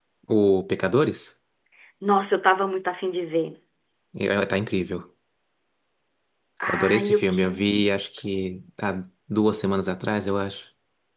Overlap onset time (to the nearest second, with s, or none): 7 s